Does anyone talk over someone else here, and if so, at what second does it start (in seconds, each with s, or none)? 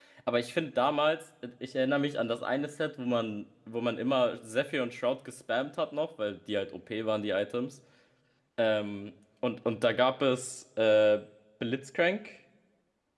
none